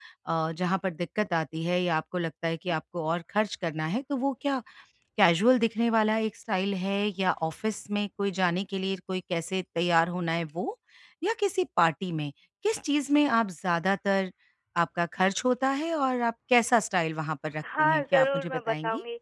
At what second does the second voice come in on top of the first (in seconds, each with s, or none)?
17.6 s